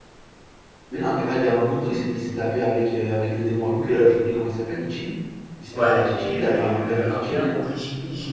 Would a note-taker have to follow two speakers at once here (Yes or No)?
Yes